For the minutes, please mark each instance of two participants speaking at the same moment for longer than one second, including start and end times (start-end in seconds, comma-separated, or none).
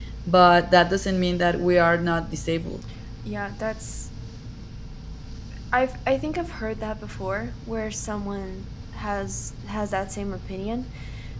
none